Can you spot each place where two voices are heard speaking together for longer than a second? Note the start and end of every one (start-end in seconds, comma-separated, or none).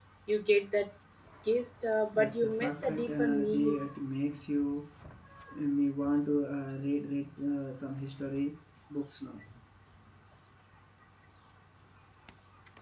2.1-3.8